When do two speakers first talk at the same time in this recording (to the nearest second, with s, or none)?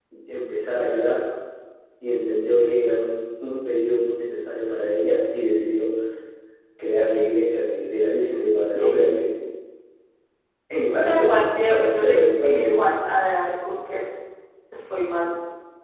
11 s